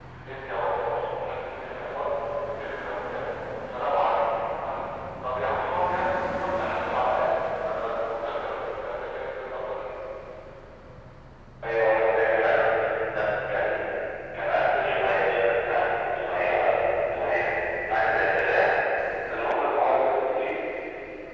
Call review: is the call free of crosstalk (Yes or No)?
Yes